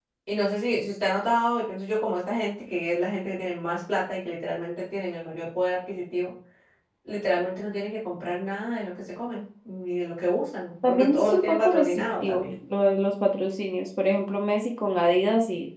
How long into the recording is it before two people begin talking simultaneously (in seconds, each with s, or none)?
10.8 s